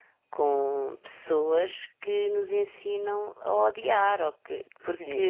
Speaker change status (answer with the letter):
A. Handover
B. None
A